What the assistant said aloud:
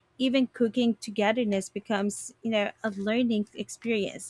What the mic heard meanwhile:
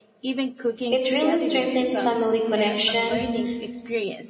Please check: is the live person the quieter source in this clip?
No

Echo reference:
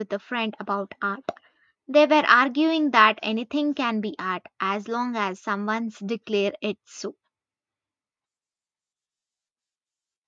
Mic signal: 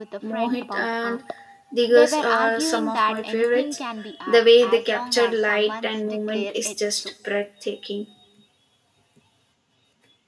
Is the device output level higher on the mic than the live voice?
No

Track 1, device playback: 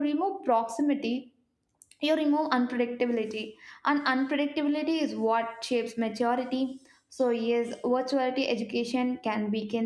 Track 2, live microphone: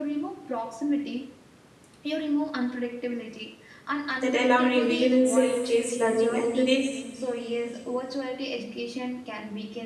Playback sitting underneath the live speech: Yes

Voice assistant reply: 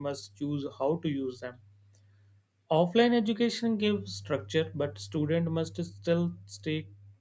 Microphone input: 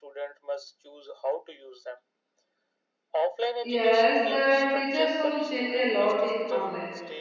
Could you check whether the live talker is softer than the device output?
No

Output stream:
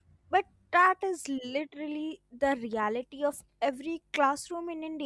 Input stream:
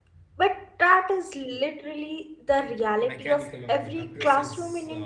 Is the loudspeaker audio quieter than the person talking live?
No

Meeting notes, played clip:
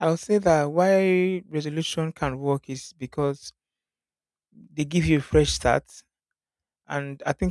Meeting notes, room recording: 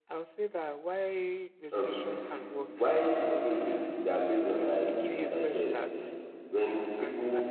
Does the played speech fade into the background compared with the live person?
Yes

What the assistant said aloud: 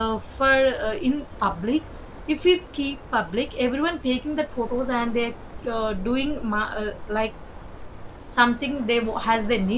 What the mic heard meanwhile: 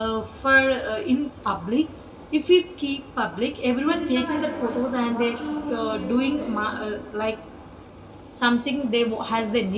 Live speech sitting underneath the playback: Yes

